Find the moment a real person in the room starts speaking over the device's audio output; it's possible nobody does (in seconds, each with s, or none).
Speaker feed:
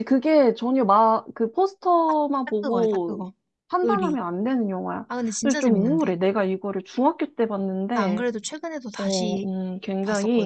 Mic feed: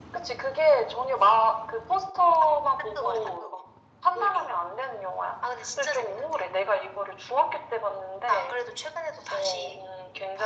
none